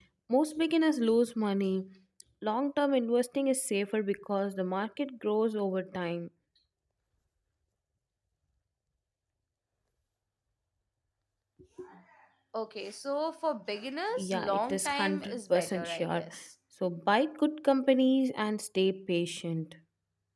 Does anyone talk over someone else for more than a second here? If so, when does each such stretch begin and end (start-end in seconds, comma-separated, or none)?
14.2-16.3